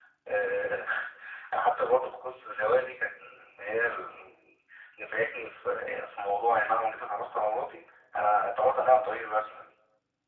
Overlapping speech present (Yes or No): No